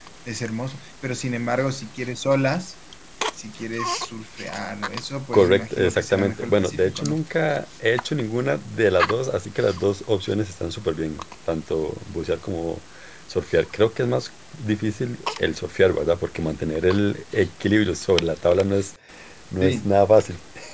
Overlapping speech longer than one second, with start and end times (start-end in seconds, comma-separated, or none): 5.3-7.2